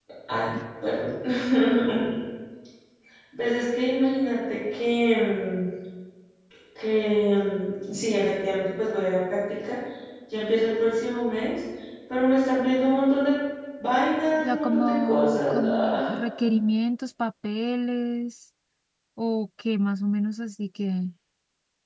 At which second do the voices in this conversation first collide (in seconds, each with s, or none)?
14.6 s